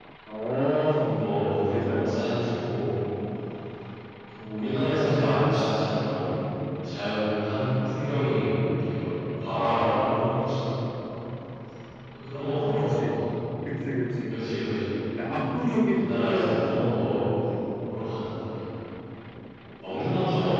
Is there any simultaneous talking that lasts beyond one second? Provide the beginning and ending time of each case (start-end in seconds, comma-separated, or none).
15.8-17.2